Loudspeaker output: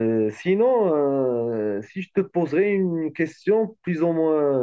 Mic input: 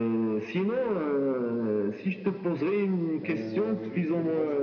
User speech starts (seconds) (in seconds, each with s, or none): 3.2 s